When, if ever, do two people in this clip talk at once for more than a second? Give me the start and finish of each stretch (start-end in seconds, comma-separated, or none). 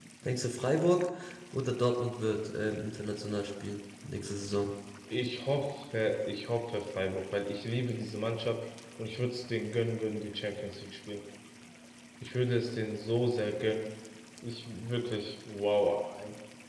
none